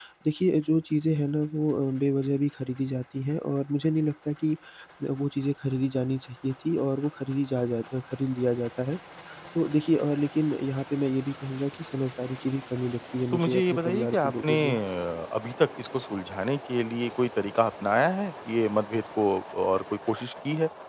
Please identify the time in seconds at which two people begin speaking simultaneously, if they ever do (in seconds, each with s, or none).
13.3 s